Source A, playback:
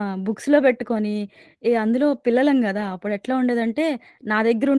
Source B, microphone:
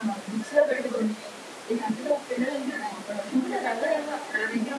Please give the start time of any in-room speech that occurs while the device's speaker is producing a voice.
3.3 s

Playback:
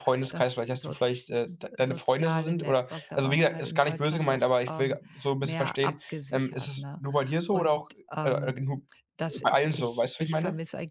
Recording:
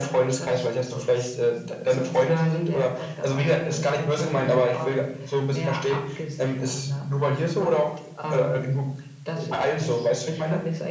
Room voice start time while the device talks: none

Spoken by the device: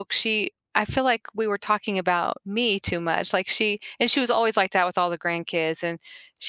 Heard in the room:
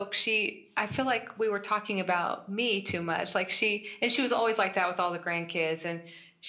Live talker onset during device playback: none

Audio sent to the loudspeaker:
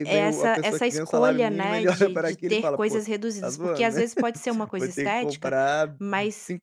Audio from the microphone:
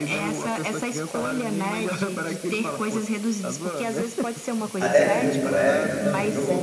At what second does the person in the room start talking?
4.8 s

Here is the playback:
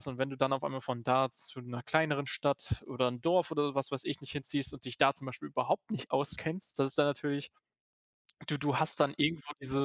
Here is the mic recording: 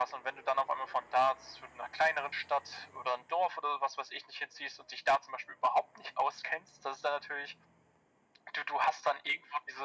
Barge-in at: none

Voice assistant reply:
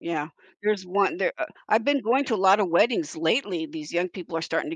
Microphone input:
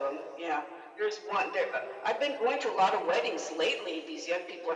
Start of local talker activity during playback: none

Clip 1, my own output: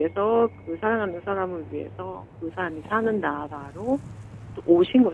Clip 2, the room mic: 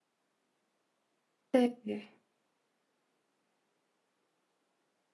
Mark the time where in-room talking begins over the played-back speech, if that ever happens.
1.5 s

